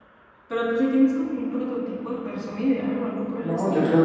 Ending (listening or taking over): taking over